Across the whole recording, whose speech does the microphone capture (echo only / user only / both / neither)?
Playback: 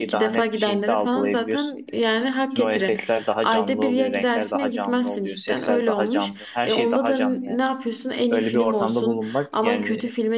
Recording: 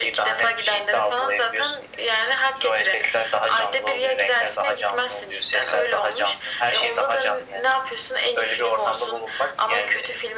echo only